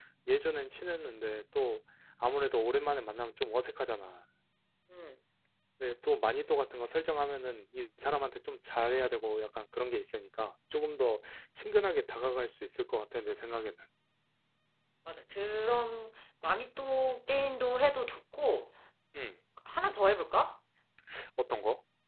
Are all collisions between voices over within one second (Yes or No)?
Yes